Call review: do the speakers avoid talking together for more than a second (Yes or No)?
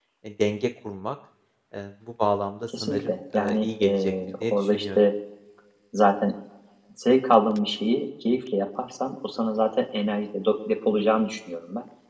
No